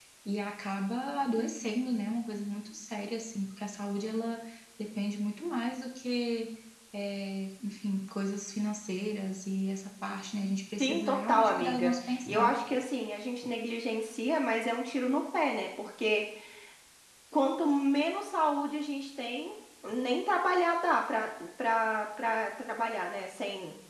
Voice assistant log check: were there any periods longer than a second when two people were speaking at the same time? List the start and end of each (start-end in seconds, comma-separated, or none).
10.8-12.6